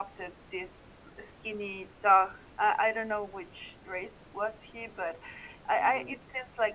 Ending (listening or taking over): listening